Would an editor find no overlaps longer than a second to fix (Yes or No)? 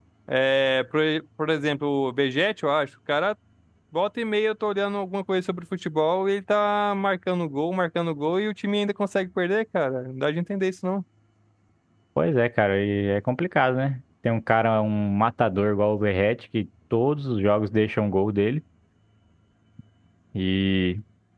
Yes